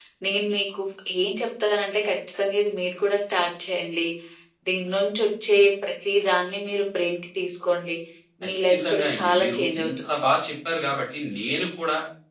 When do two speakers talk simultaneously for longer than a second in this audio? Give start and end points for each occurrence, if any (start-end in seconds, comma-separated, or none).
8.5-9.9